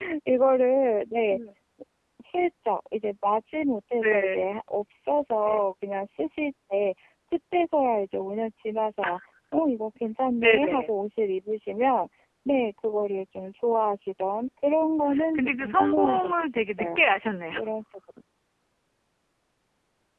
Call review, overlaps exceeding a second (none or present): present